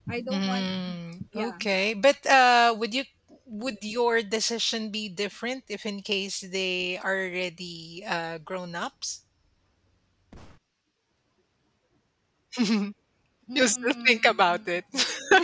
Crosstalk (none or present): present